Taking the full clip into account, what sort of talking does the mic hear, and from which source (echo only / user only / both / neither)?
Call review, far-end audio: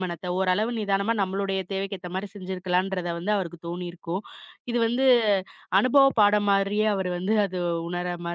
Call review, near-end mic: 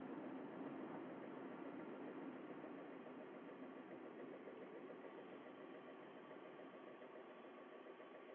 neither